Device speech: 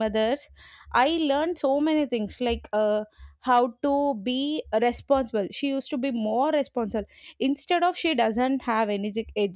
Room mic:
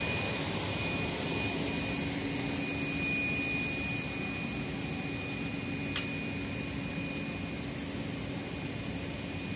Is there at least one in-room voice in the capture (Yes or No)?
No